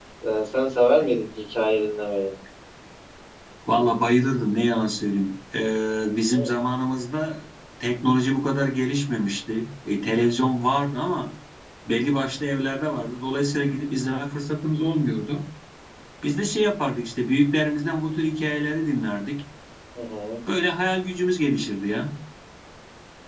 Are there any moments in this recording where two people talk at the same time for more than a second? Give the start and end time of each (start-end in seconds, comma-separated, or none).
none